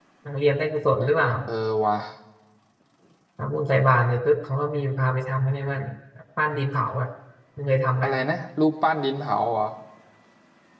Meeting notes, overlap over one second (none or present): none